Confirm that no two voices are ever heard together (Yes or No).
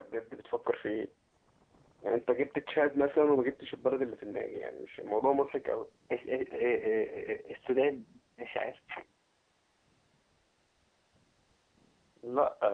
Yes